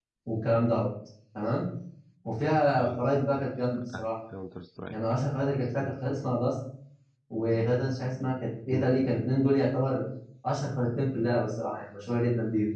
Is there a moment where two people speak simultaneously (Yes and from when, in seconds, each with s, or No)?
Yes, from 2.8 s